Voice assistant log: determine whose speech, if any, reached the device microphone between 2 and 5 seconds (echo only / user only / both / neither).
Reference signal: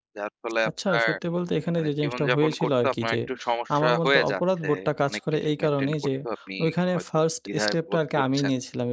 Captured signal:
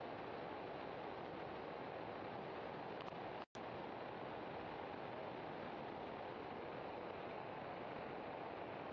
neither